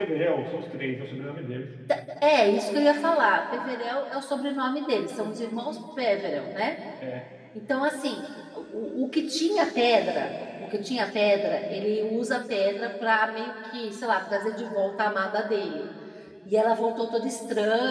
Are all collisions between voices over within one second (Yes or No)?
Yes